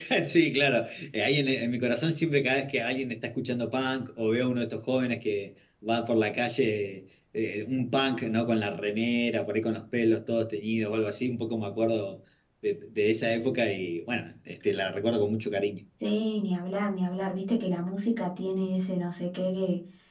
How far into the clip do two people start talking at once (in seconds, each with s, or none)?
none